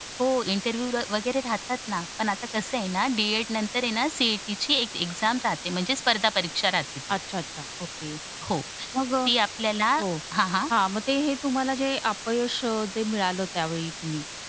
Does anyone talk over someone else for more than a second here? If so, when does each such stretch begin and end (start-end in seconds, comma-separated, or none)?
none